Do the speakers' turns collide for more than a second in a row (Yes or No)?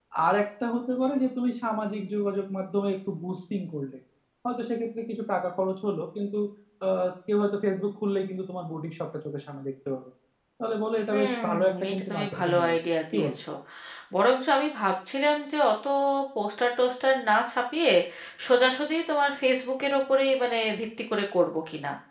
Yes